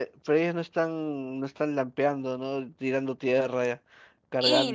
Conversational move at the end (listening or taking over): taking over